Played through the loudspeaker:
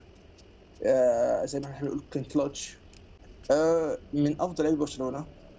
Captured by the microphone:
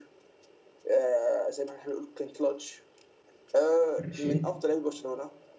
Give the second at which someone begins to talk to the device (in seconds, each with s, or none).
4.0 s